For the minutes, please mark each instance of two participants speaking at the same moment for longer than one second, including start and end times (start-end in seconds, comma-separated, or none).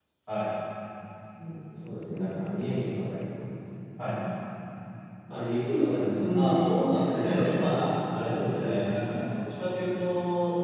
6.4-9.2